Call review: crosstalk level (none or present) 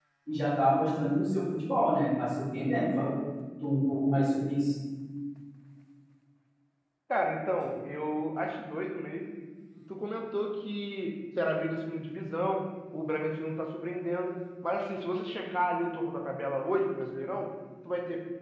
none